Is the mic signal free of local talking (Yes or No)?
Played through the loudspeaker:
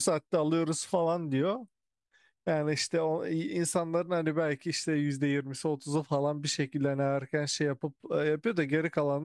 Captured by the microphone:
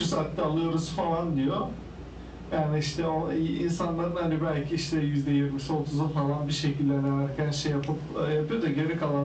Yes